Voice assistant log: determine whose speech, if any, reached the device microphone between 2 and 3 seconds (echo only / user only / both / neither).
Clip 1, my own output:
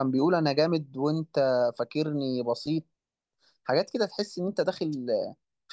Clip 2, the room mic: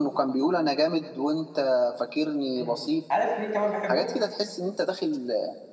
both